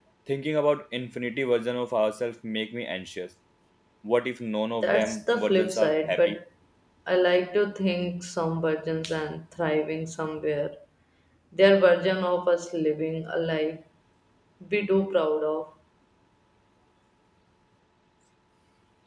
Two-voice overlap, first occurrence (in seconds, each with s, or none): 4.8 s